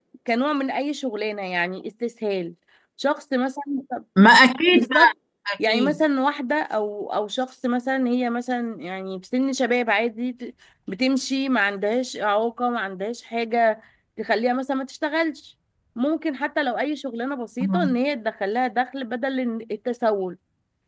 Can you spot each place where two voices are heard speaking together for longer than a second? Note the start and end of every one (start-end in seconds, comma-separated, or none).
none